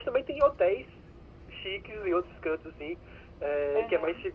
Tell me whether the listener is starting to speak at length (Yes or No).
No